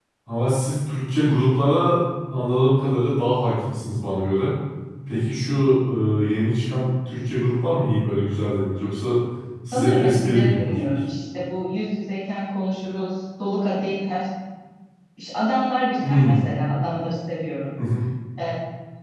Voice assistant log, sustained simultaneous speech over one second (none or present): present